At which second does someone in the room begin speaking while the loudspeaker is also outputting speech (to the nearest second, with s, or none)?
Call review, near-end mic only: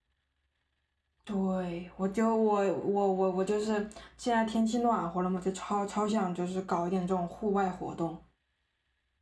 1 s